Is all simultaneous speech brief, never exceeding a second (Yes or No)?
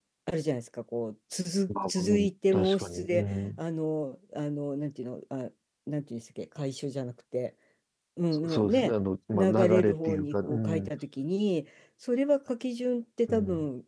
No